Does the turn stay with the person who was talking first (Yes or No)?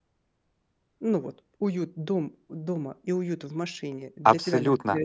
No